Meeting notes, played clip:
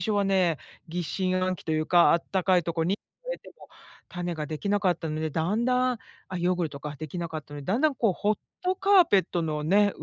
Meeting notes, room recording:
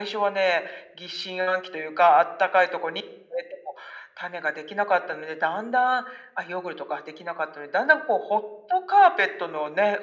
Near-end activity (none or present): none